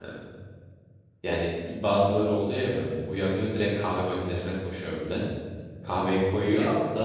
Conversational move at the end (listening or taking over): listening